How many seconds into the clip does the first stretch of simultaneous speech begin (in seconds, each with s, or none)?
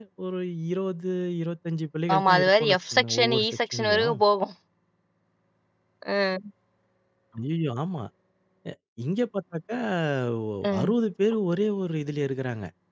2.1 s